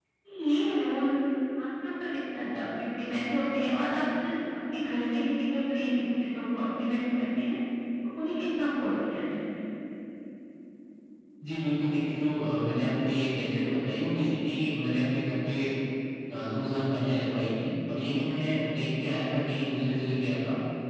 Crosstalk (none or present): none